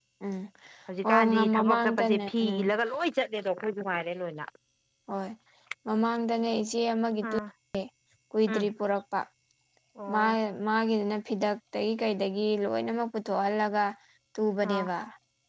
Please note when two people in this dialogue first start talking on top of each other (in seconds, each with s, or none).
1.0 s